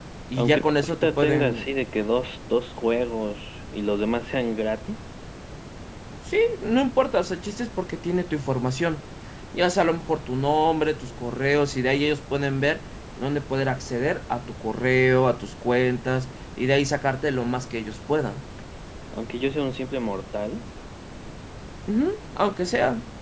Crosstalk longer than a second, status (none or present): present